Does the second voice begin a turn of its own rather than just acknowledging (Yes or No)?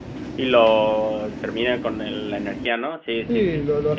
Yes